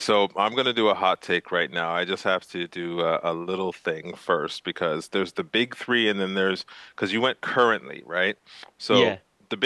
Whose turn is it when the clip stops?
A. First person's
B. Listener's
A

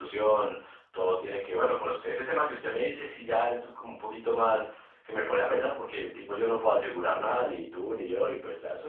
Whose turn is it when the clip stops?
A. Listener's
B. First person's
B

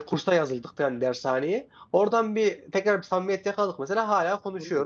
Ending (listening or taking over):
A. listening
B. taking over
B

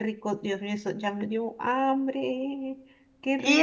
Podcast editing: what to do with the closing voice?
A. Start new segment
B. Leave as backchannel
A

